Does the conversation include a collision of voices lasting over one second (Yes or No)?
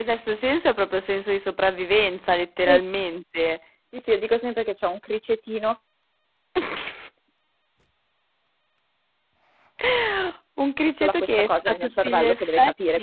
Yes